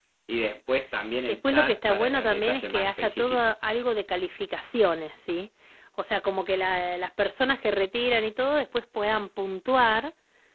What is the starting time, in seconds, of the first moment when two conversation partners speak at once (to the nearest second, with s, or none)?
1 s